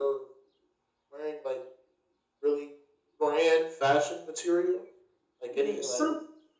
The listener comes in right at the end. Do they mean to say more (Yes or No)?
Yes